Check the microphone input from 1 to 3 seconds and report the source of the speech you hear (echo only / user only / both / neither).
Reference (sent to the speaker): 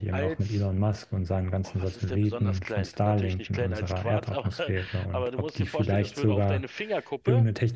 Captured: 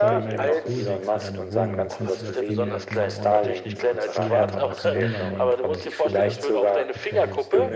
both